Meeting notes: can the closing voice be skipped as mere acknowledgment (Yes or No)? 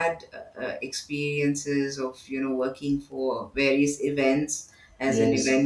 Yes